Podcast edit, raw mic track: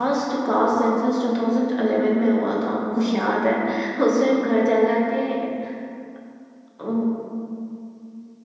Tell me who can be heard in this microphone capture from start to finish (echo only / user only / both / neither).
user only